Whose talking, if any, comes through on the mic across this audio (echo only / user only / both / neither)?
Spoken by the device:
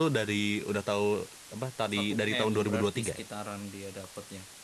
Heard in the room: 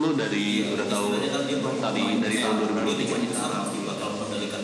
both